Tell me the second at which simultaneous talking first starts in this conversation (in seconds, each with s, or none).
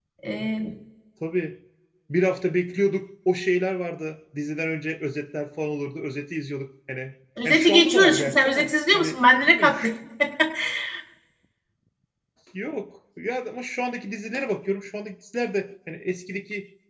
7.4 s